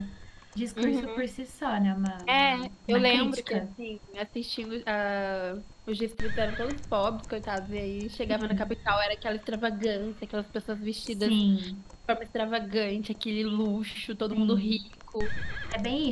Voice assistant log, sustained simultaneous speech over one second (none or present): present